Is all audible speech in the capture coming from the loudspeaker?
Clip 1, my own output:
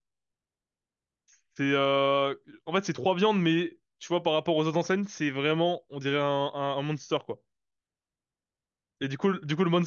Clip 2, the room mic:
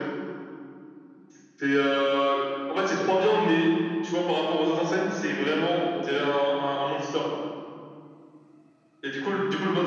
Yes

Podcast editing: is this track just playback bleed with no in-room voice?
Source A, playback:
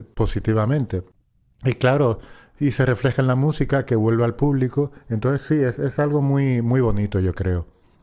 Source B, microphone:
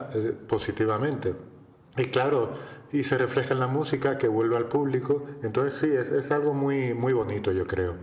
Yes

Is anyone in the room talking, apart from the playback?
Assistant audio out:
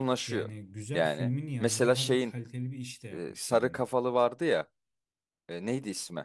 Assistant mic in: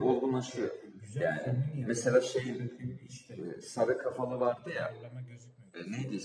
Yes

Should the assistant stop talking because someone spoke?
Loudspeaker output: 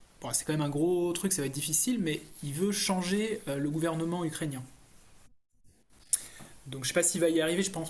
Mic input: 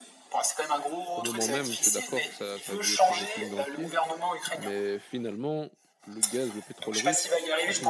Yes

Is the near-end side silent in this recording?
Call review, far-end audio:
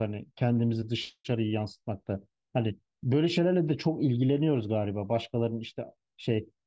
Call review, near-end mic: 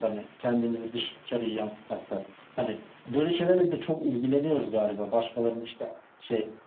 Yes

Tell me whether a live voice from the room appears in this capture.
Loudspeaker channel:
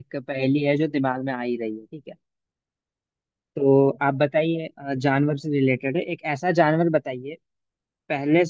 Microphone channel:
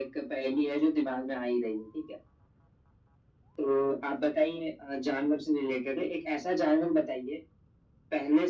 No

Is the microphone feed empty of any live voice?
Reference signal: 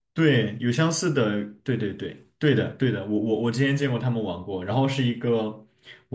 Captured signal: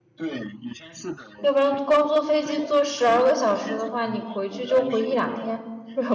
No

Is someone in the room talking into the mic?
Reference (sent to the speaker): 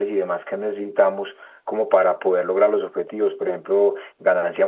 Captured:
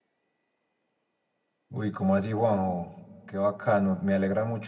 Yes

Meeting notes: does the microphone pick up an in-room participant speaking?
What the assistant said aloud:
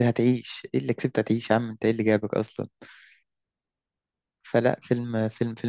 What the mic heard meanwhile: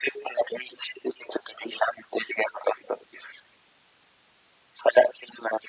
No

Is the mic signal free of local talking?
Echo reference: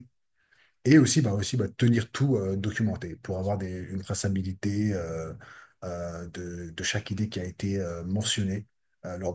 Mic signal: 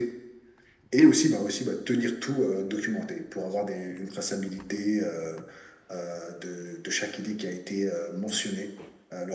Yes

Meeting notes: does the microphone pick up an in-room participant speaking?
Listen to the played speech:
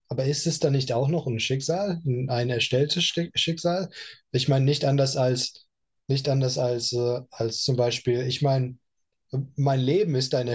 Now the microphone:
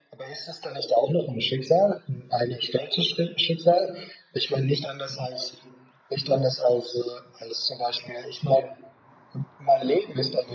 No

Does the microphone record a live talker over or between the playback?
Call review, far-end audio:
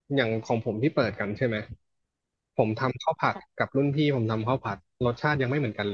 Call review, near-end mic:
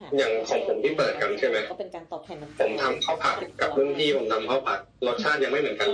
Yes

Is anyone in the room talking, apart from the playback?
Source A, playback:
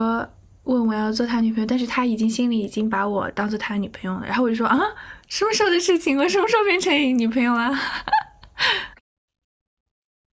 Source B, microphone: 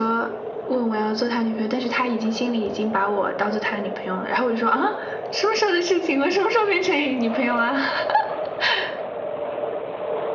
No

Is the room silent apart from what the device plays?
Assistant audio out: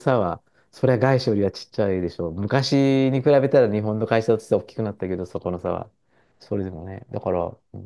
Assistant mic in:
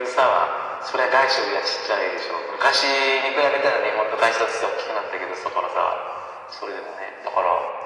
Yes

